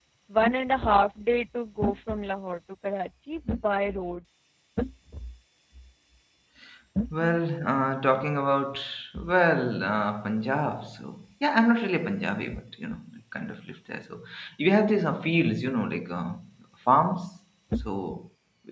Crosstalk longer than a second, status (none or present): none